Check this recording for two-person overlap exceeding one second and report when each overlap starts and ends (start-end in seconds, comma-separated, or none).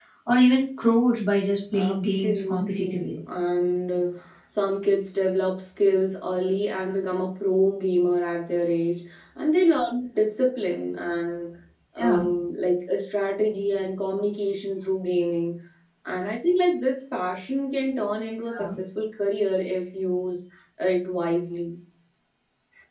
1.7-3.2